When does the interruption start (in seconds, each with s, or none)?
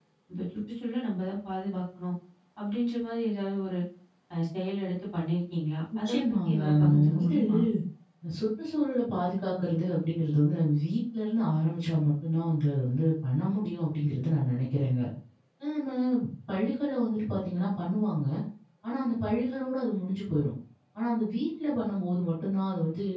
6.0 s